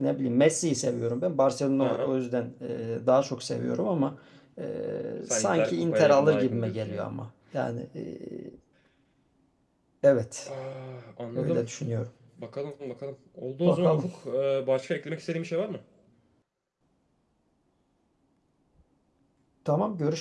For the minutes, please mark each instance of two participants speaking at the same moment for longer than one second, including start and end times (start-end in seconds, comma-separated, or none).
5.3-7.0